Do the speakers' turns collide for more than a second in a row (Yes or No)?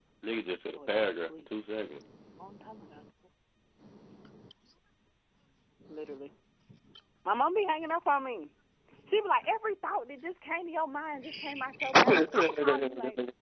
Yes